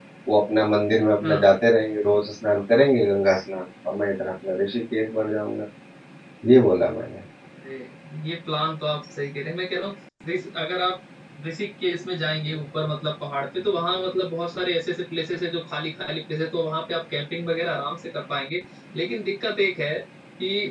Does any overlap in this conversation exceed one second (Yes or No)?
No